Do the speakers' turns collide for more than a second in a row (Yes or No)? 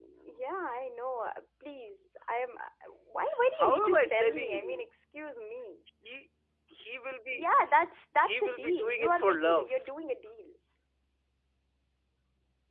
Yes